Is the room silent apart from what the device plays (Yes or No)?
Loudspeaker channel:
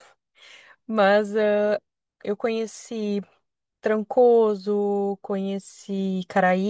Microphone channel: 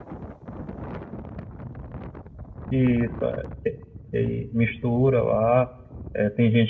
No